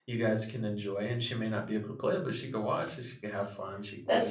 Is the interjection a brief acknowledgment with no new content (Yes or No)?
Yes